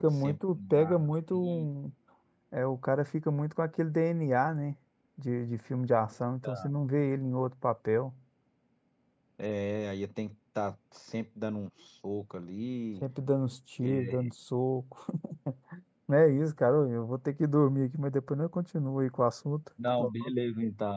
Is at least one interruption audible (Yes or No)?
Yes